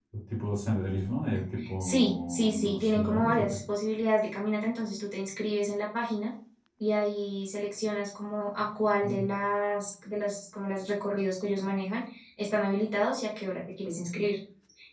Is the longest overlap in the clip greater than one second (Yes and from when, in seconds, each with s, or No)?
Yes, from 1.6 s